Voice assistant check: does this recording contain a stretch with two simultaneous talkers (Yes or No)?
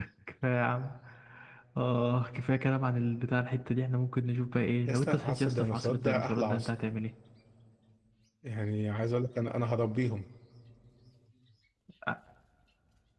Yes